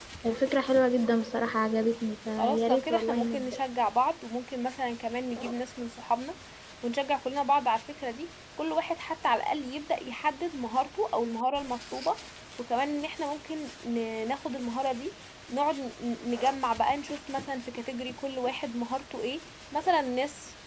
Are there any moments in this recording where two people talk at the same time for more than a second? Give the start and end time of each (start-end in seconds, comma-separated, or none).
2.4-3.6